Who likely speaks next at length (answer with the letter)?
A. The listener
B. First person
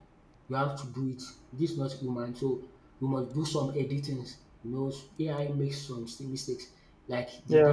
B